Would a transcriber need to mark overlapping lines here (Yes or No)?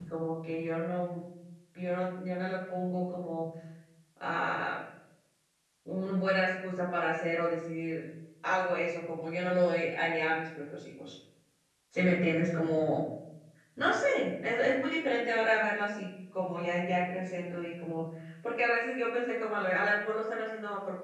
No